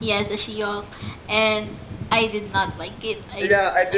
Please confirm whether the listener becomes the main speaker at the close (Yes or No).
Yes